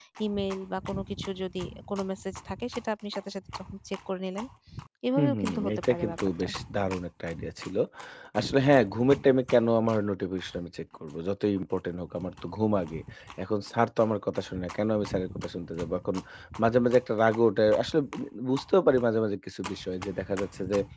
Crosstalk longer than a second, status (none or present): present